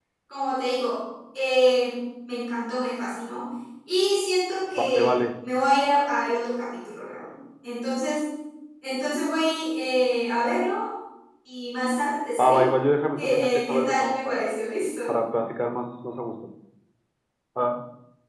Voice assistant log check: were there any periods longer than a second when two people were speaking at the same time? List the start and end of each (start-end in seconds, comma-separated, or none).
13.2-14.5